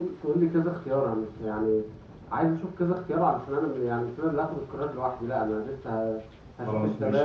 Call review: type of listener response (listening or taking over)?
listening